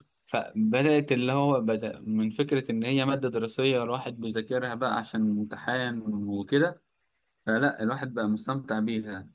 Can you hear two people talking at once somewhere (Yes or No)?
No